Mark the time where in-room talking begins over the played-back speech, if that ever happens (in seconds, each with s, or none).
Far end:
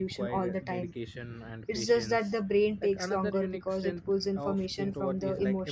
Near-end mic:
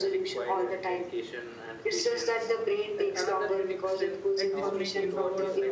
4.4 s